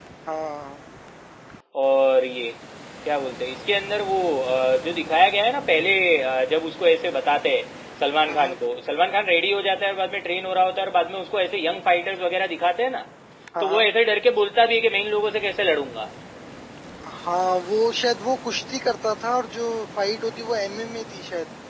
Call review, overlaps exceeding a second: none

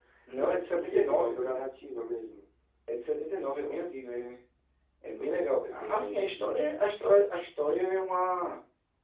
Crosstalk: present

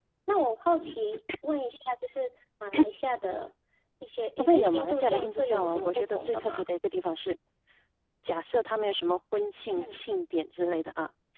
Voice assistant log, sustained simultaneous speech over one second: present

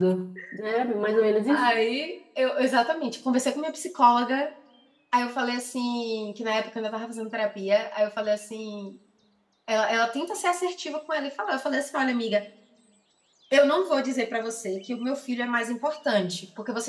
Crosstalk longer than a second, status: none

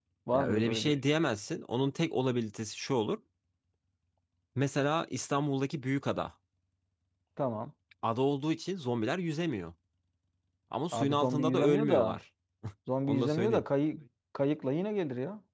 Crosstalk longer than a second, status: present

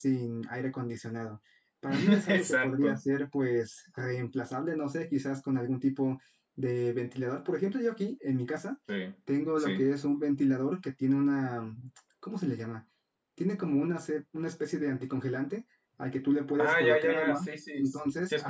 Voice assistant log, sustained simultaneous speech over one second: present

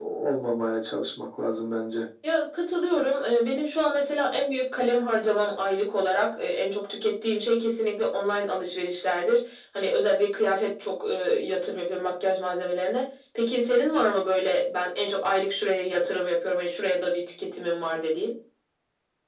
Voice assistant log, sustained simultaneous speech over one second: none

